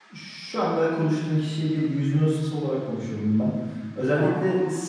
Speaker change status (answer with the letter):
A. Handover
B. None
B